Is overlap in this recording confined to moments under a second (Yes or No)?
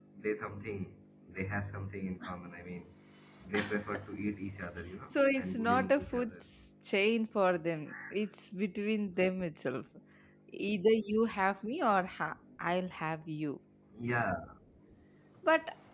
No